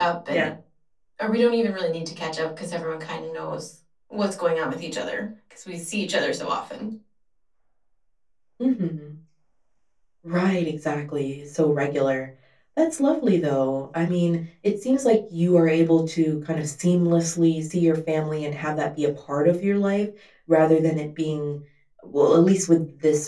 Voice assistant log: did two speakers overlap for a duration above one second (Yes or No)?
No